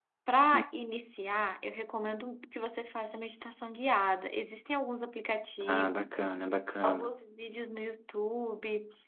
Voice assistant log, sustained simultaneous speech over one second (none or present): none